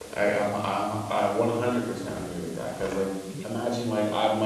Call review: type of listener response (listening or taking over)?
listening